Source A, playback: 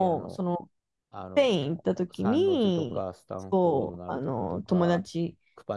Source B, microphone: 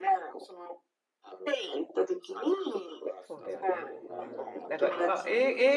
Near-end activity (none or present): present